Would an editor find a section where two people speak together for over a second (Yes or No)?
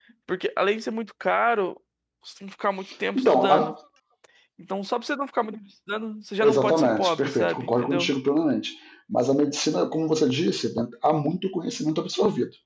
Yes